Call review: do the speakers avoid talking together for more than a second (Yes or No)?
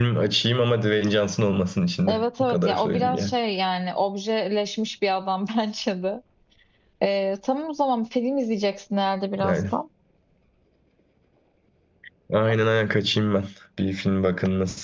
No